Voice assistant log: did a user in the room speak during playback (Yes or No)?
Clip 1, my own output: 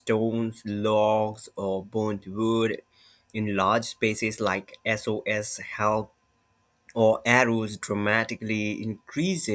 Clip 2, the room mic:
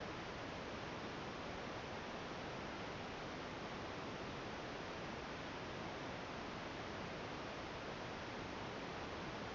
No